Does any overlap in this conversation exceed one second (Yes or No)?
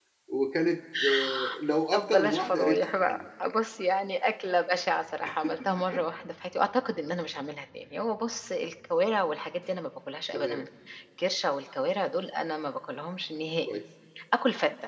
Yes